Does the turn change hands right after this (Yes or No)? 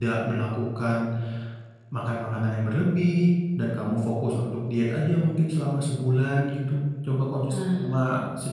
No